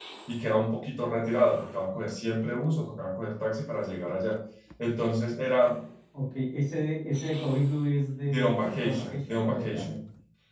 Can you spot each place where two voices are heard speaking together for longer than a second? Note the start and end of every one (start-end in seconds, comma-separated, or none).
8.2-9.9